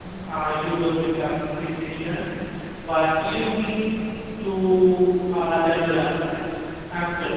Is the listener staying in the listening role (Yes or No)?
Yes